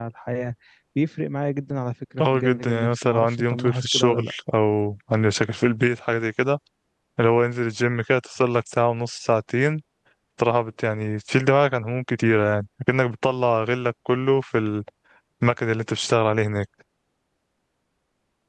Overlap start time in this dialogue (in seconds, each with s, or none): 2.2 s